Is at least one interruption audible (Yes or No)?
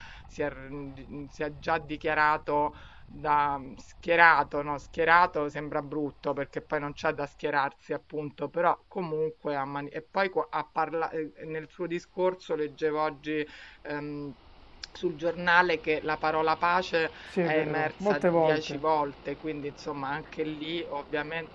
Yes